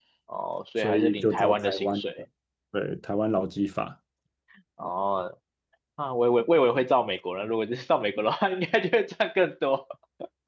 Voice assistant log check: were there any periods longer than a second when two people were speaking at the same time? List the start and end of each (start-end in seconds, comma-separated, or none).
0.8-2.0